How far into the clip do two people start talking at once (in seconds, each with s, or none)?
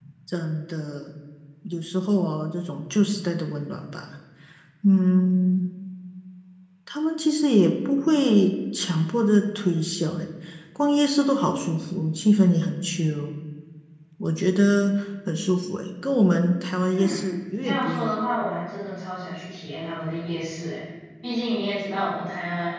16.9 s